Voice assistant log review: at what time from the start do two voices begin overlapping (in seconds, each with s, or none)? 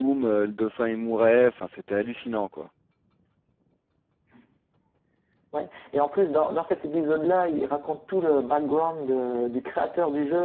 none